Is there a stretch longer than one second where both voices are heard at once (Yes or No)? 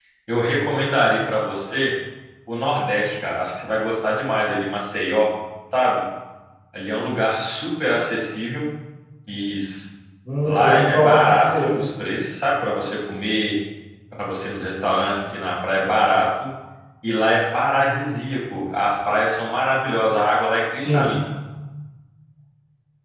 Yes